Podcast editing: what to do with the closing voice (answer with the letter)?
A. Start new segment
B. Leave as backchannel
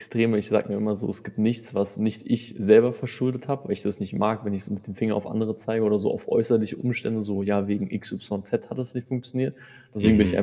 B